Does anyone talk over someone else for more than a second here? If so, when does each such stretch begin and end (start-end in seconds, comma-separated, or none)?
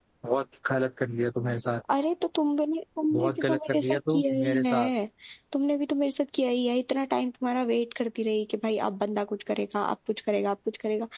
3.1-4.9